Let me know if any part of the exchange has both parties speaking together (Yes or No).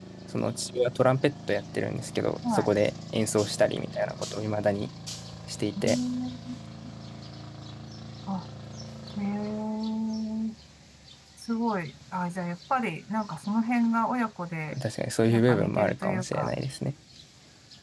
Yes